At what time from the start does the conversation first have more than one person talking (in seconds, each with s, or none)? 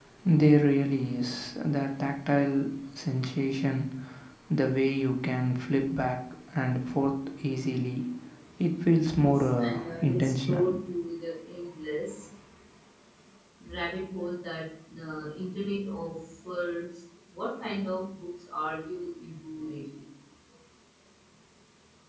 9.2 s